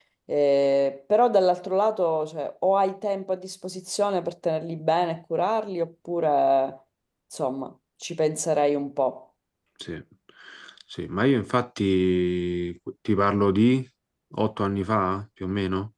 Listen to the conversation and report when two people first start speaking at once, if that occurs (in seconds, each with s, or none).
none